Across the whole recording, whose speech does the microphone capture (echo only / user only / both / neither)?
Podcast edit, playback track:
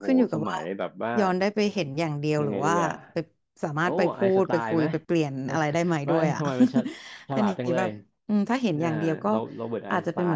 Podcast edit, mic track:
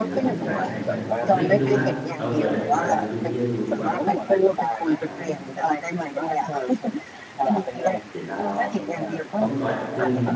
both